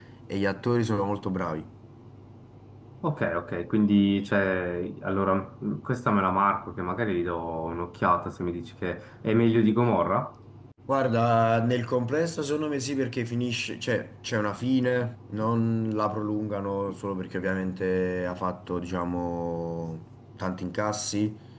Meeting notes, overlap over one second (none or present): none